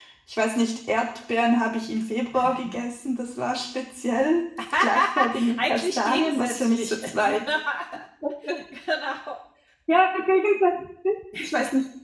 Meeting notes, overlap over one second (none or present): present